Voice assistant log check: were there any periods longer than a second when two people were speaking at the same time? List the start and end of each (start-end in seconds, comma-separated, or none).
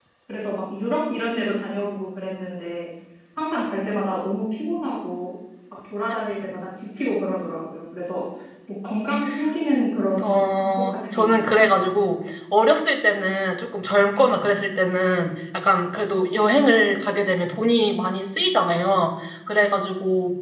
10.2-11.6